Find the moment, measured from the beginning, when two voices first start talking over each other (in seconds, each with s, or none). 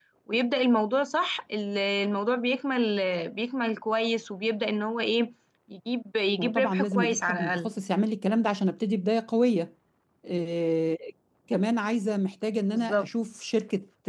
6.4 s